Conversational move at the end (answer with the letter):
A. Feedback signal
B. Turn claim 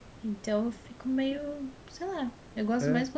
A